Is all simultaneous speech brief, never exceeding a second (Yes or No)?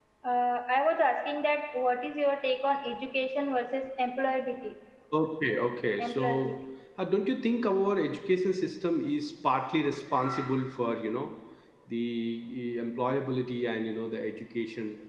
Yes